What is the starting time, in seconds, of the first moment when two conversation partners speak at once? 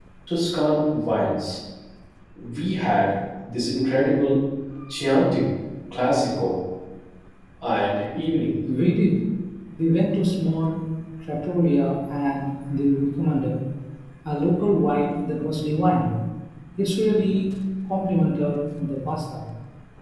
none

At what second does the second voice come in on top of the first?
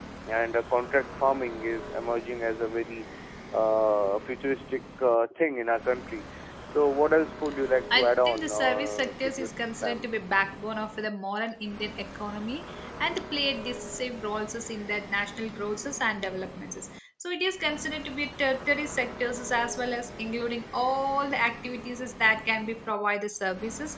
8 s

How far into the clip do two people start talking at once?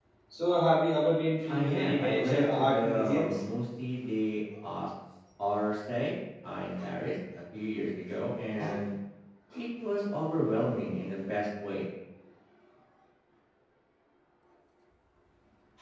1 s

